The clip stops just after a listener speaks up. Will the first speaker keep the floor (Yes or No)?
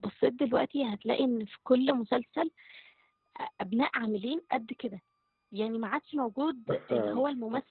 Yes